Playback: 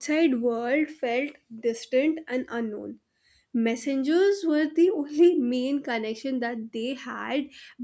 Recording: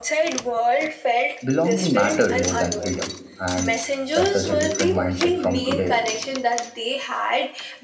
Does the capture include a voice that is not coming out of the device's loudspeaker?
Yes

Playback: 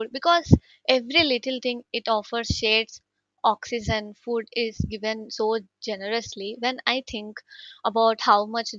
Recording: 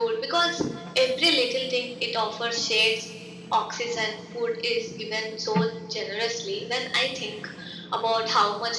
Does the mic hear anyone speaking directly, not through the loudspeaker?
No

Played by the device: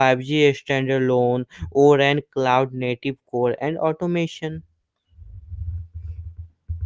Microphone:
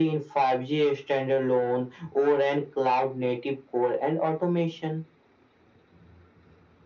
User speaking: No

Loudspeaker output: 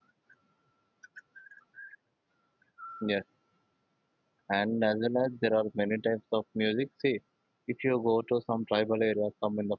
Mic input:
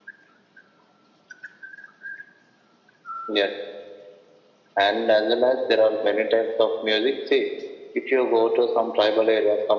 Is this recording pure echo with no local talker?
Yes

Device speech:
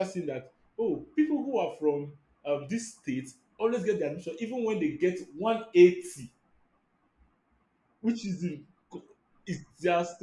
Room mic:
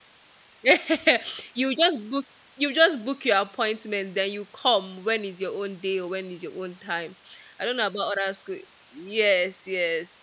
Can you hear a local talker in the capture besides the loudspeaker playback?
Yes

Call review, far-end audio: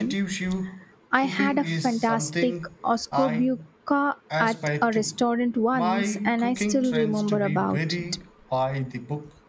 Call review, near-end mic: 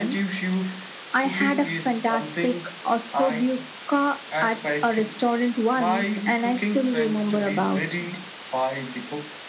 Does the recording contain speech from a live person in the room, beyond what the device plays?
No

